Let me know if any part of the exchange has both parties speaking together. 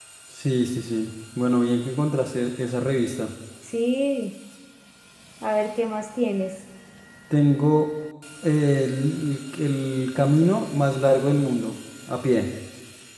No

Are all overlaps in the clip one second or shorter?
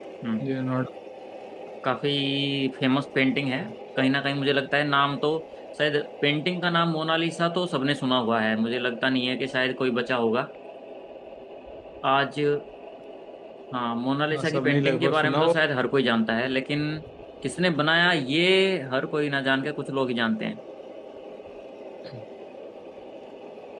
No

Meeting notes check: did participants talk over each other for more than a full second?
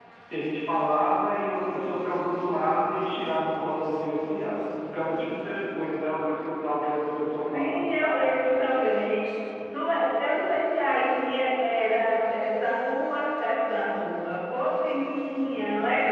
No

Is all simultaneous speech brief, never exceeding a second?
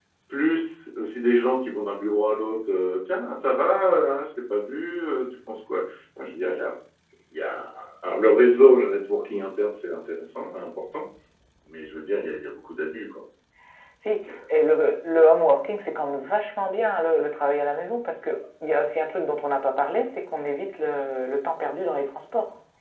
Yes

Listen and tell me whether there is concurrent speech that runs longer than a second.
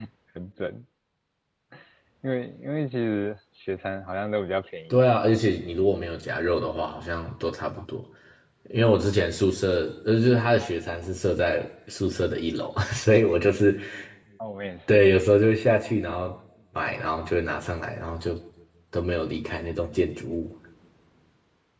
No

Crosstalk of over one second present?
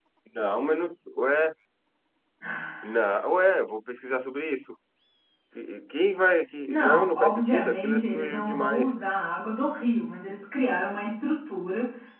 Yes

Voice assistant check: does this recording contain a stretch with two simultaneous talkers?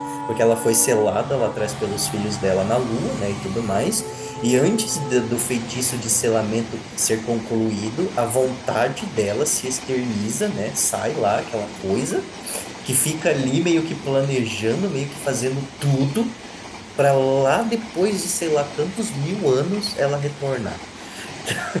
No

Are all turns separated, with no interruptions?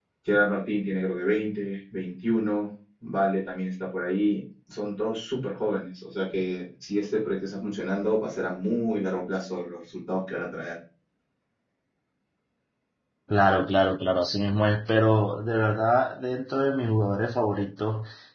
Yes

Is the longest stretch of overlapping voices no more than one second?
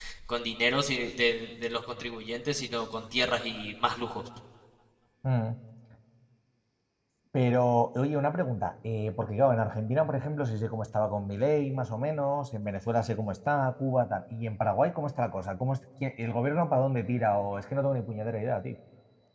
Yes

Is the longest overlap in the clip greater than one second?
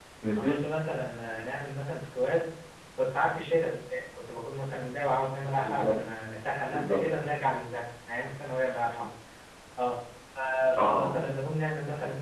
No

